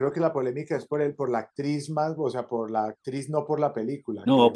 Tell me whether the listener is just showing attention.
No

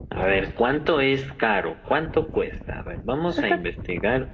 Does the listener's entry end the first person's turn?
No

